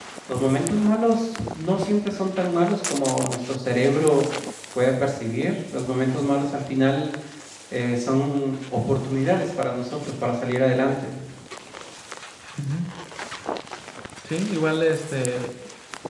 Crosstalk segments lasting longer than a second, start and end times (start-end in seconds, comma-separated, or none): none